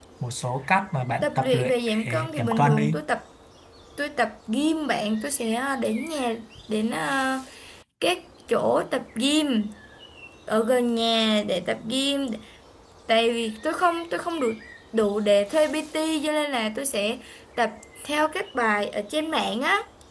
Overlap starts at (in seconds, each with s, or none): 1.2 s